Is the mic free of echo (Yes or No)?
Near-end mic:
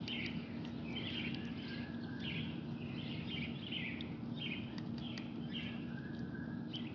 Yes